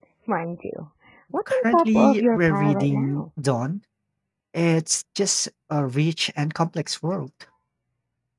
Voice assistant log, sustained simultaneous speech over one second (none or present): present